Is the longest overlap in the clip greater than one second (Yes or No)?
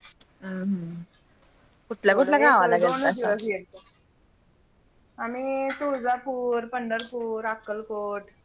Yes